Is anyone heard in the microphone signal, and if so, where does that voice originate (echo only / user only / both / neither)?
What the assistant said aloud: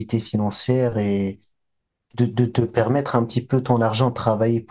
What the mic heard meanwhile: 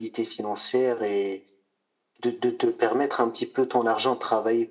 echo only